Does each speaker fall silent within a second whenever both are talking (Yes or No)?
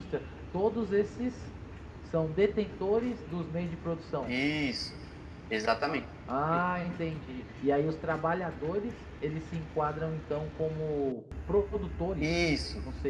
Yes